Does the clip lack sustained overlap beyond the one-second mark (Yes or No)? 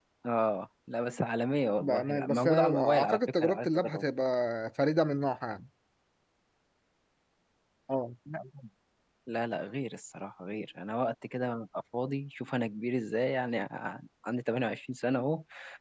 No